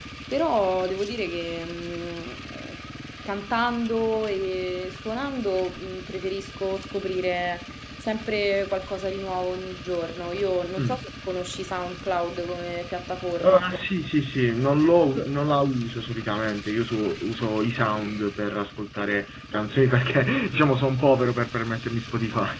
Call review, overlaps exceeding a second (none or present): none